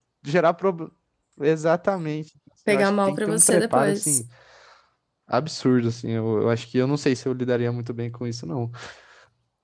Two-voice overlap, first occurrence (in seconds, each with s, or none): 2.7 s